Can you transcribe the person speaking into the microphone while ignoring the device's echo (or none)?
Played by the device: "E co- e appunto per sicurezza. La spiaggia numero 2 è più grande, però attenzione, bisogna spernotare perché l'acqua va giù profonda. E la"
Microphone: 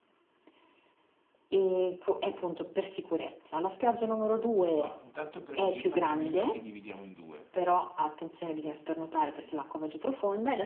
ma intanto prendi una cabina che dividiamo in due.